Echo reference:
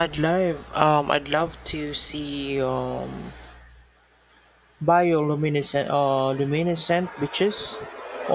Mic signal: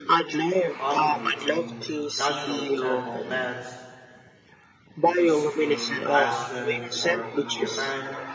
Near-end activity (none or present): present